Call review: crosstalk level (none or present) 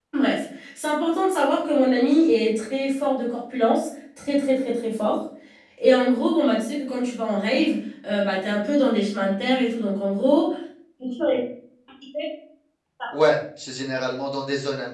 none